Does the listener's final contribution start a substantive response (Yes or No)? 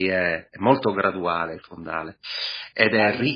Yes